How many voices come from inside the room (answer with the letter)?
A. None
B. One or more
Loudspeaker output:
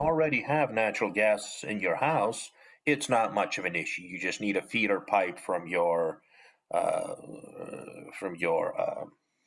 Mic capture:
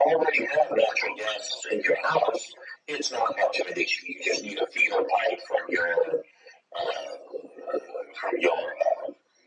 A